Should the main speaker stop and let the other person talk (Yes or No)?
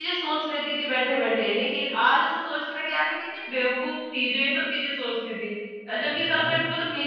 No